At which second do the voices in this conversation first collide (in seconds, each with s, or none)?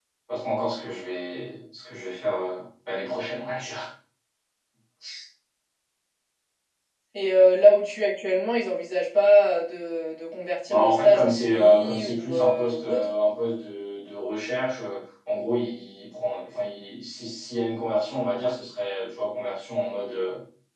10.7 s